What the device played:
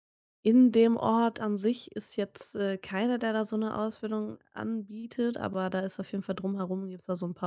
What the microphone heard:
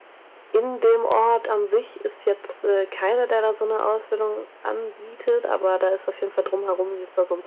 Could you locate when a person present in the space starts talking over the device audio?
none

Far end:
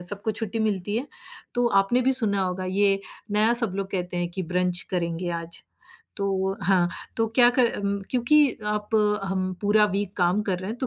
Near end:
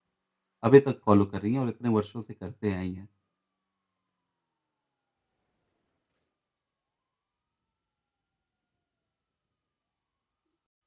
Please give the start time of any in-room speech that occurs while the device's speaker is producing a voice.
1 s

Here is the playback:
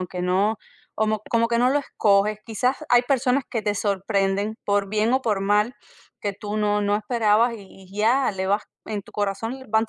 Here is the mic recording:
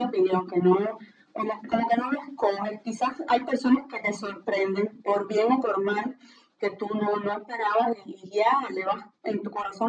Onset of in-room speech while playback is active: none

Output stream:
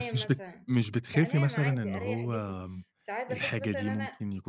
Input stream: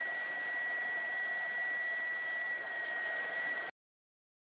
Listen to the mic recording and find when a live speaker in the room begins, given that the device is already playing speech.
none

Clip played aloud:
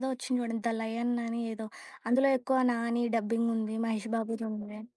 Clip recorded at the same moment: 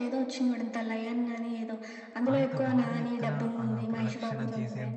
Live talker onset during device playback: 2 s

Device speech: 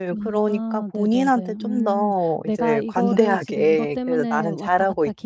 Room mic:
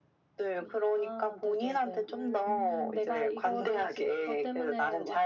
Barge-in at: 2 s

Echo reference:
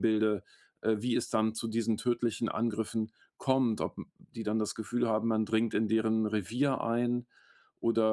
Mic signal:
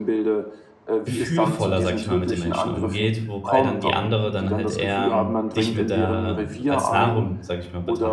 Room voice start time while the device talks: 1 s

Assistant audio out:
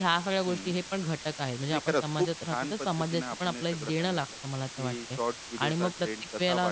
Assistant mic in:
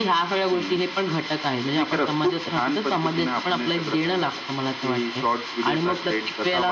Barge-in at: none

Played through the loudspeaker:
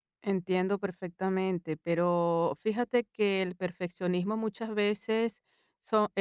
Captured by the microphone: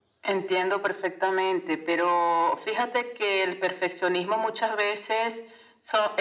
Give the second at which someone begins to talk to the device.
none

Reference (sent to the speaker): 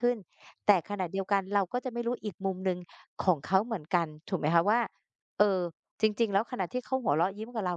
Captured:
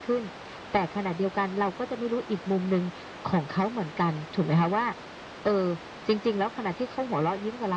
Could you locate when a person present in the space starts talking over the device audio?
none

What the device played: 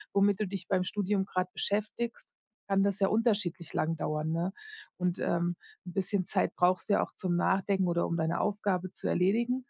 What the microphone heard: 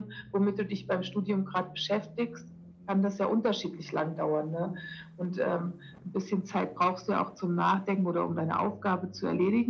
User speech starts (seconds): none

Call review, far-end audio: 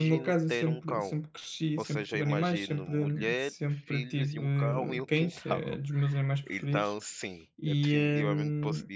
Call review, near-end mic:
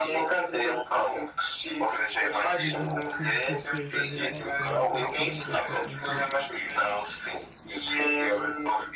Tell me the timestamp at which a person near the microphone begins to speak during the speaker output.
3 s

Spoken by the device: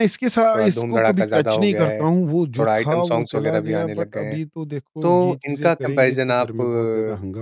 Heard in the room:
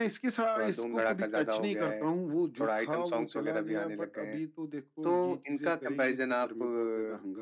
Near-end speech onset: none

